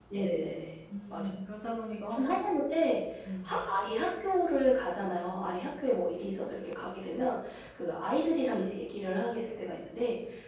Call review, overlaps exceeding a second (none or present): none